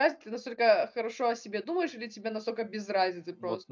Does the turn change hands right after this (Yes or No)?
Yes